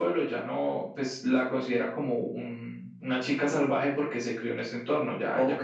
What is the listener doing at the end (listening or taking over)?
taking over